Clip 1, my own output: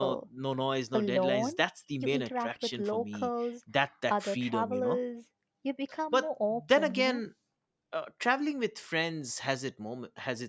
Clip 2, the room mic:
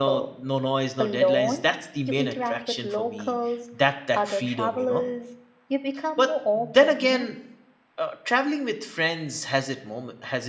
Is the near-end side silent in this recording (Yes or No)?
Yes